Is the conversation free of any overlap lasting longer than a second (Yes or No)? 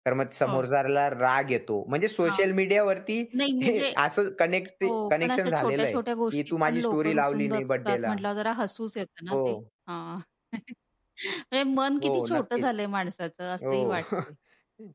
No